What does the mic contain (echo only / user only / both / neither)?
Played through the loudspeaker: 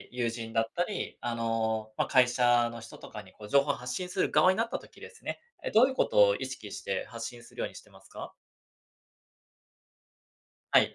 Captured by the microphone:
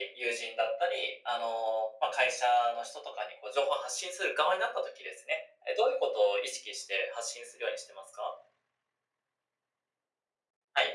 echo only